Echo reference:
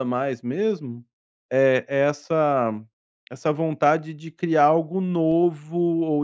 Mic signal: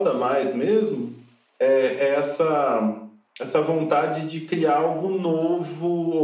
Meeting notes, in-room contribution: none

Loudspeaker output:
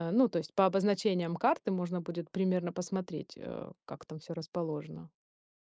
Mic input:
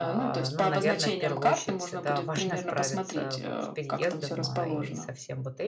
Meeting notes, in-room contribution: present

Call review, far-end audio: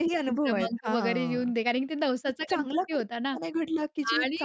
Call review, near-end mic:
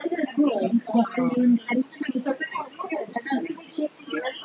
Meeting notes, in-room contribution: none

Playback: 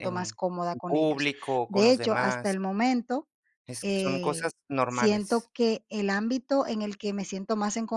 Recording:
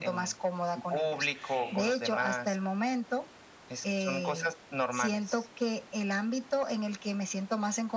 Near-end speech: present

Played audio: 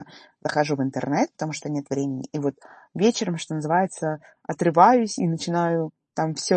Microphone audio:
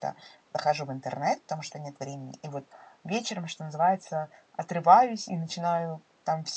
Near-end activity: none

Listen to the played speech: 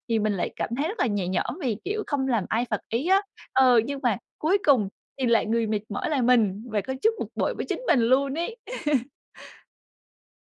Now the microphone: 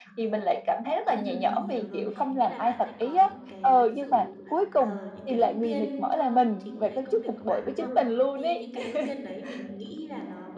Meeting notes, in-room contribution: present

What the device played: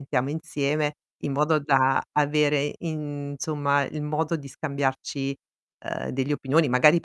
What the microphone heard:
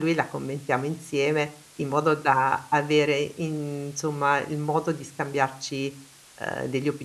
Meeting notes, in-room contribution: none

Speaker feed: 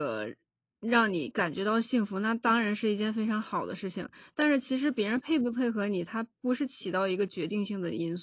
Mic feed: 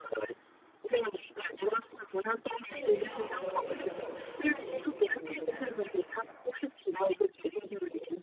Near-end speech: present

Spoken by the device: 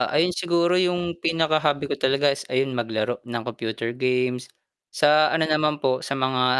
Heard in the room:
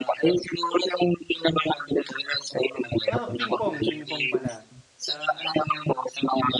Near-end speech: present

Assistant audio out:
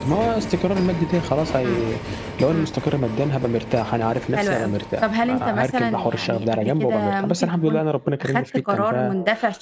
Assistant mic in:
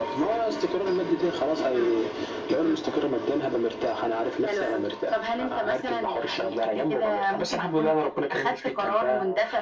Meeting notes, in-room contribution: none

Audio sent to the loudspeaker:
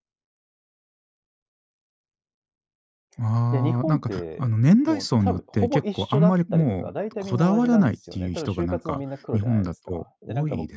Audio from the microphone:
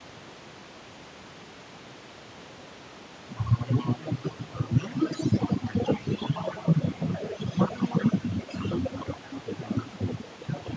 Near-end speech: none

